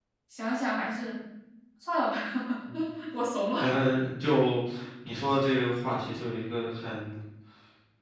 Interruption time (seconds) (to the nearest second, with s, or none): none